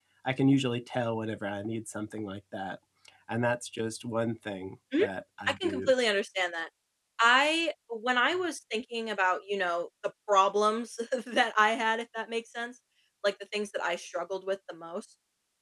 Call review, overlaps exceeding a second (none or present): none